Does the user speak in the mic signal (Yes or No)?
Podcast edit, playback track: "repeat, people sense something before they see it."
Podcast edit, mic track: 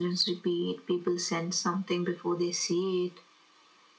No